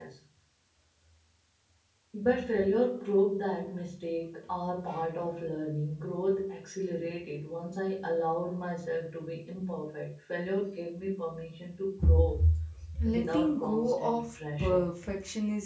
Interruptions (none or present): present